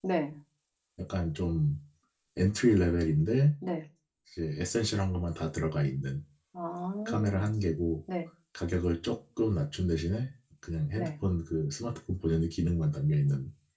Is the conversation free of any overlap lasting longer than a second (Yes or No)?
Yes